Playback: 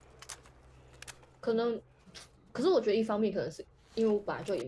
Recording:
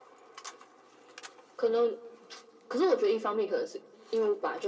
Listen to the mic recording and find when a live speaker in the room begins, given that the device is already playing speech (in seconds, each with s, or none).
none